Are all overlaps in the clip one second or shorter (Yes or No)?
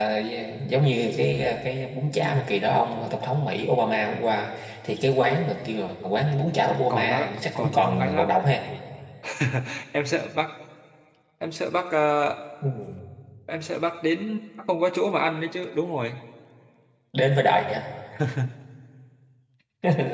No